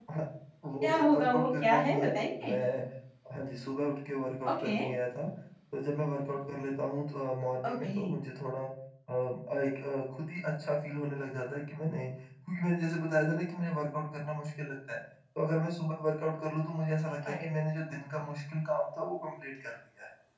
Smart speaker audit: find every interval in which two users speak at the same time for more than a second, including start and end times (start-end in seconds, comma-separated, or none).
0.8-2.6